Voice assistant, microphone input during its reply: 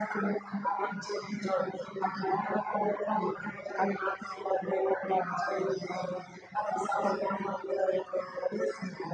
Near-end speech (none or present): none